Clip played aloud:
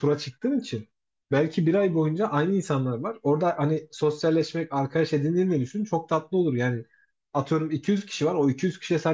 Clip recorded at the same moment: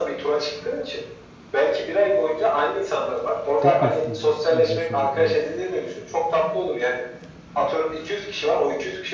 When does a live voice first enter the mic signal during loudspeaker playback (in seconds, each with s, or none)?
3.5 s